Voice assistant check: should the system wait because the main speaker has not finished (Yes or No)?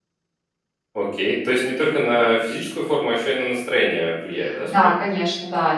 No